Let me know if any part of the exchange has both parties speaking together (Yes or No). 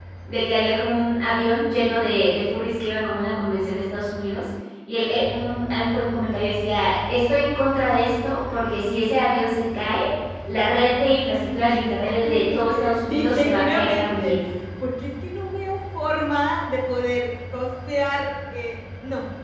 Yes